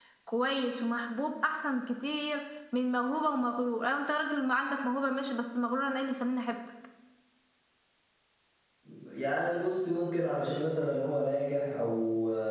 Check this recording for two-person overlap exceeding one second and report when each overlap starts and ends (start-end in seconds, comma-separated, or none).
none